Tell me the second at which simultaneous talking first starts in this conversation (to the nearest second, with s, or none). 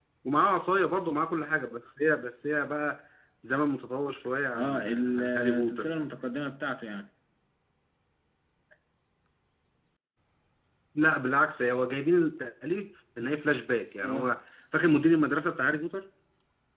5 s